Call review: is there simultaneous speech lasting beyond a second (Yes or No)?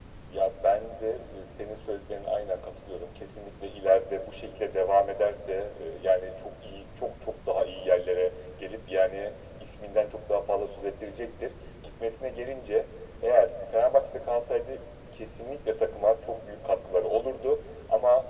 No